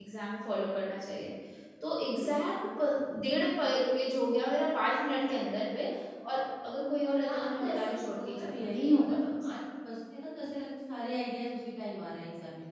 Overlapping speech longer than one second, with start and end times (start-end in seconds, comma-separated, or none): 7.2-9.5